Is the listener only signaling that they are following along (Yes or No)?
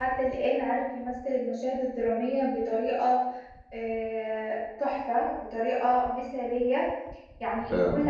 Yes